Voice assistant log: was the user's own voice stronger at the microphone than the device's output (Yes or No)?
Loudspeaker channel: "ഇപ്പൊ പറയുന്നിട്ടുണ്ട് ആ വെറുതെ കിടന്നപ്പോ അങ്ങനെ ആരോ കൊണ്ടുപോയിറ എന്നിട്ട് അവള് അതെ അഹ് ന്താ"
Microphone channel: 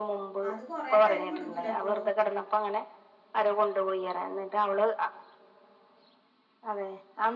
No